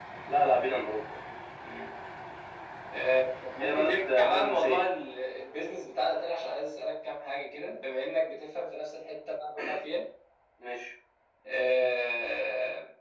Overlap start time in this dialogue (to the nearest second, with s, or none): 4 s